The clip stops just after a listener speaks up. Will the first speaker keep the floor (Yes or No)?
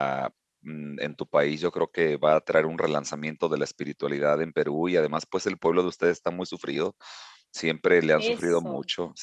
Yes